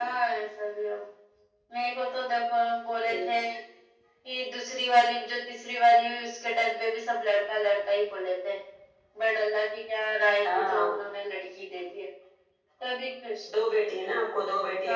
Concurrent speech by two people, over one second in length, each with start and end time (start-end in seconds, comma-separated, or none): none